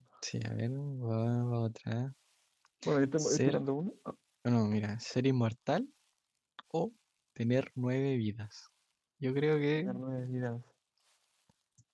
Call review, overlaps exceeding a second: none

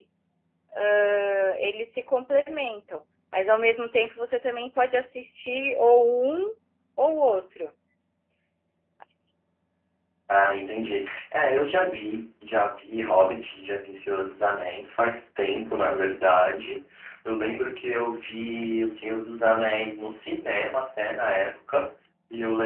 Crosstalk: none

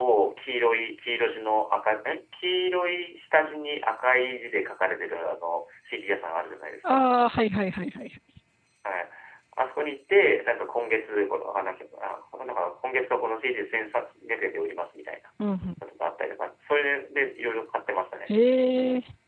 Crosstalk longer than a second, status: none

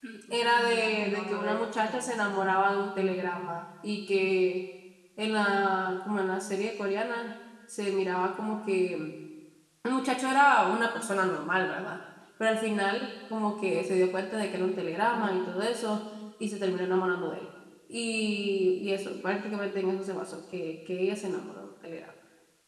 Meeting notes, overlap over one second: present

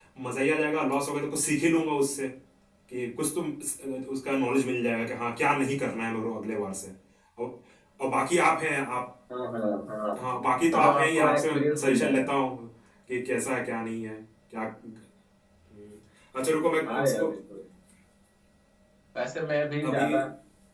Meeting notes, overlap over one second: present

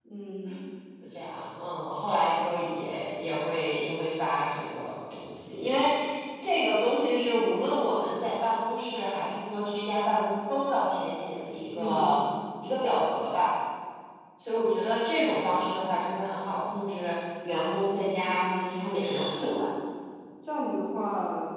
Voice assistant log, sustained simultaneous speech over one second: present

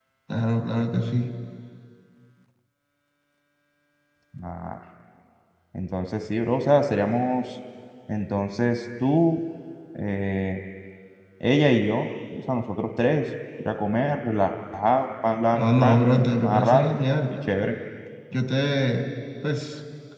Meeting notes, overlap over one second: present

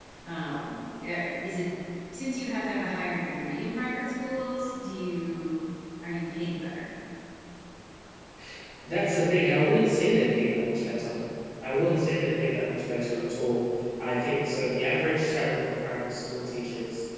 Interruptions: none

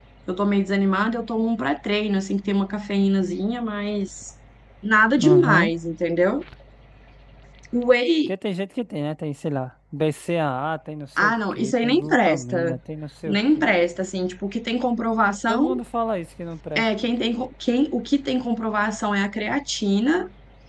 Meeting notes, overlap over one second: present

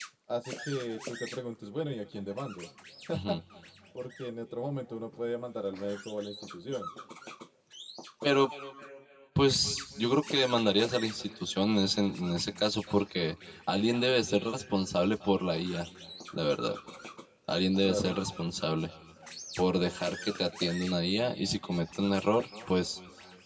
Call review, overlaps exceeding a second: none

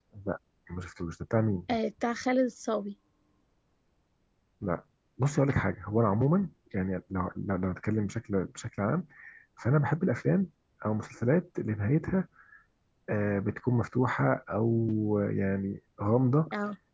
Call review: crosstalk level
none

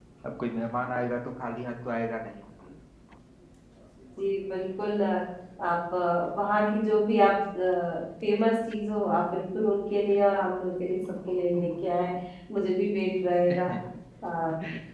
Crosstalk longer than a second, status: none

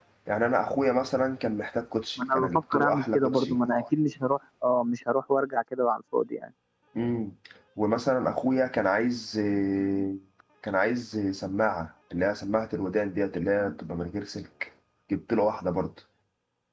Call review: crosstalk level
present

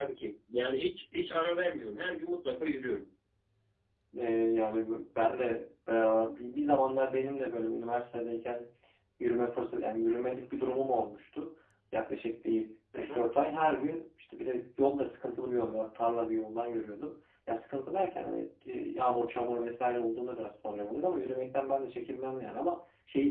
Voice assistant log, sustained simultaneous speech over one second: none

